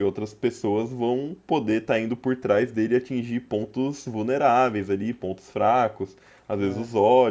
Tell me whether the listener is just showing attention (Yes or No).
Yes